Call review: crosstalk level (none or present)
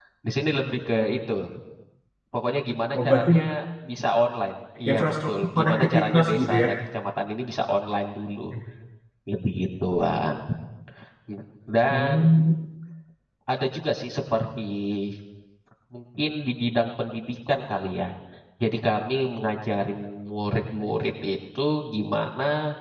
present